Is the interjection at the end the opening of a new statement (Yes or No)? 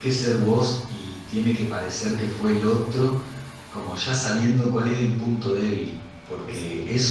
No